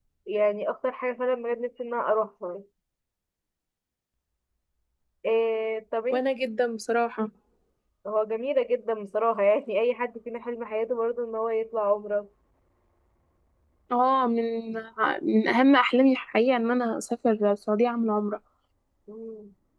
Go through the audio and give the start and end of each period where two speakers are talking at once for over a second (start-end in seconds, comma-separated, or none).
none